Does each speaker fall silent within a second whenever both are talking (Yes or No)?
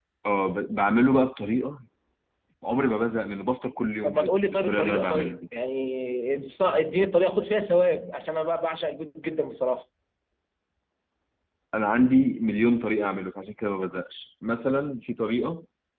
No